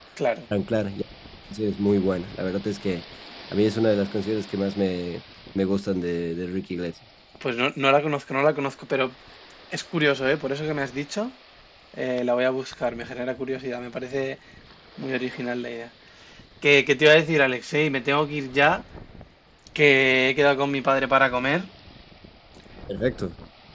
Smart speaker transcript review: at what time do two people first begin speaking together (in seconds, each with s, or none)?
none